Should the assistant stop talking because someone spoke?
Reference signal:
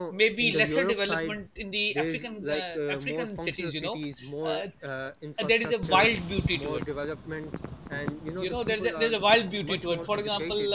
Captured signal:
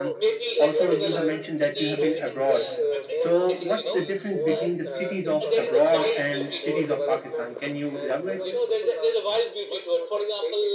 Yes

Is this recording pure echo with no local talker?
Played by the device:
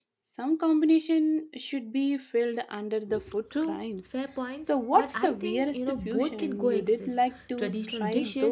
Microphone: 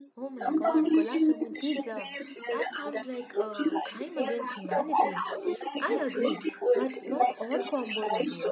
No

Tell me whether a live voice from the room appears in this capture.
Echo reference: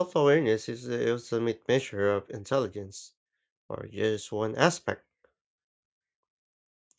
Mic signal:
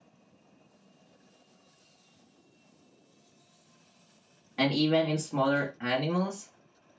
Yes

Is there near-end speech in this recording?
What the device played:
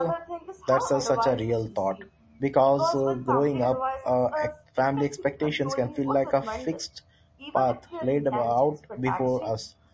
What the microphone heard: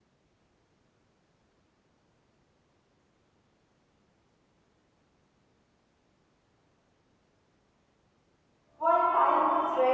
Yes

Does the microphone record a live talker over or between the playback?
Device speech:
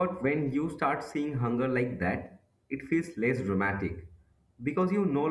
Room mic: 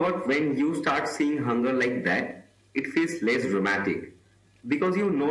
No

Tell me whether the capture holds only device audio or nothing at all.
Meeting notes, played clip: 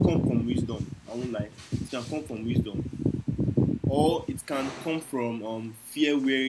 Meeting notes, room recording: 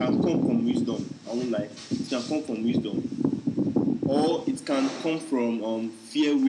Yes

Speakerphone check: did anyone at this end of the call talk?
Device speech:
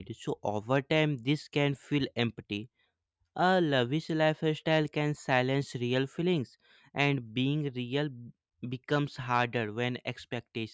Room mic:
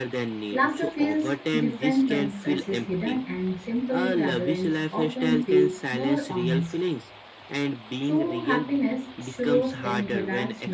Yes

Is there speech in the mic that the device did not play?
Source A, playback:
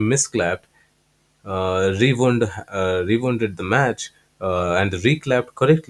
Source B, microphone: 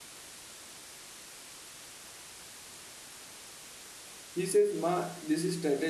Yes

